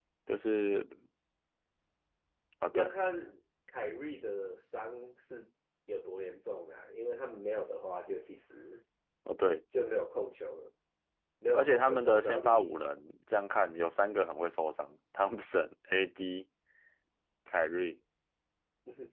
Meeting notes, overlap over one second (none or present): present